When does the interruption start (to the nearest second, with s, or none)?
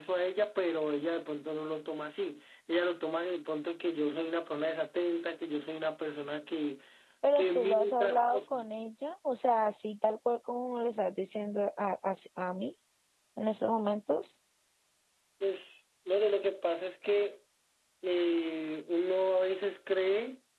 7 s